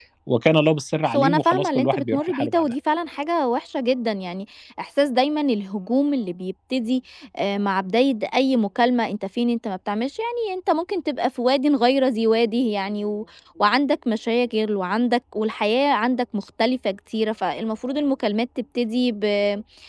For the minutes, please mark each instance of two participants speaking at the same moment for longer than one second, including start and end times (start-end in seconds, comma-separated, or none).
1.1-2.7